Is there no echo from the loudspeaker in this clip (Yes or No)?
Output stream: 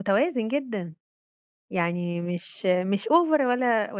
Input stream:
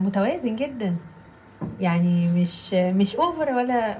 No